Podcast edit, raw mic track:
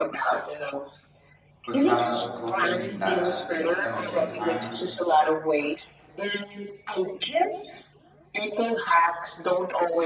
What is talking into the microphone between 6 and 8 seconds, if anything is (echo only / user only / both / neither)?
echo only